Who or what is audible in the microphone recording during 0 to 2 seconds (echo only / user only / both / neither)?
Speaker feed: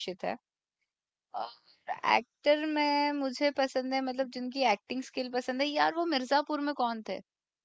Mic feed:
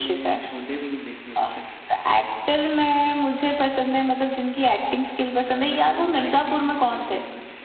both